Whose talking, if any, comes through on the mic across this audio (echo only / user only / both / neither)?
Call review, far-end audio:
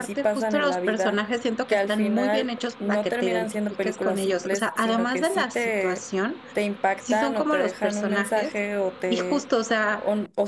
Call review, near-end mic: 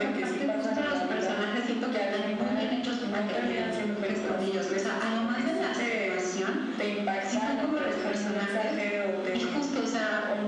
echo only